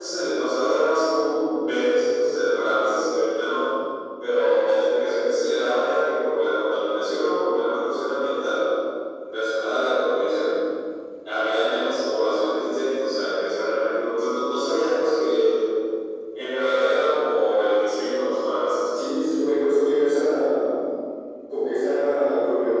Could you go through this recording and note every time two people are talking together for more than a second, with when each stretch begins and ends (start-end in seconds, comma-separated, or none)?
none